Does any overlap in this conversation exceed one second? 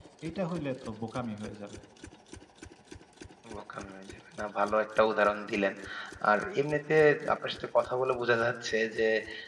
No

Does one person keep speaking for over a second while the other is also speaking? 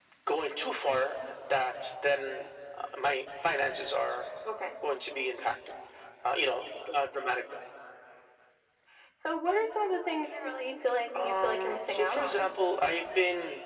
Yes, from 11.1 s

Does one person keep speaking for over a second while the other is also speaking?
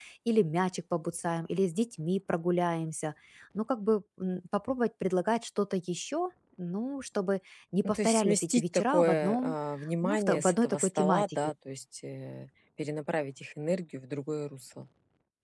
Yes, from 7.8 s

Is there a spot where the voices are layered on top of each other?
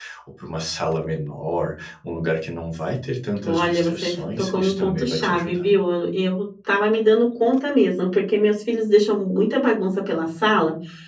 Yes, from 3.4 s

